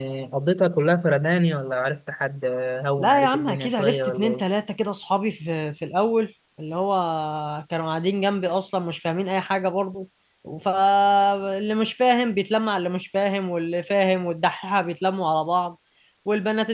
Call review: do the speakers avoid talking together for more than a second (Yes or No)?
No